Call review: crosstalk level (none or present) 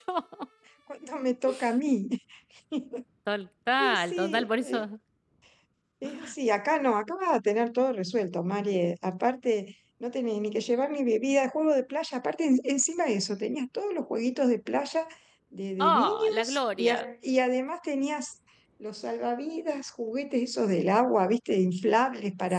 present